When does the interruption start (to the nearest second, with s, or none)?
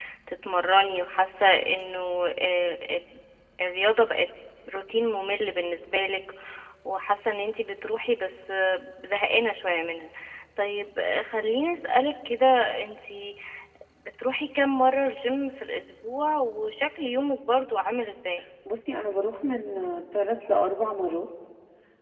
none